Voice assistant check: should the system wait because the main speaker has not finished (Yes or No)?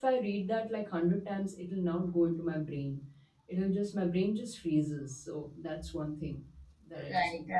No